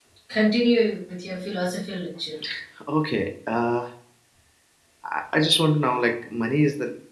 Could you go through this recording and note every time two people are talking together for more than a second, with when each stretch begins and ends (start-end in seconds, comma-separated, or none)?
none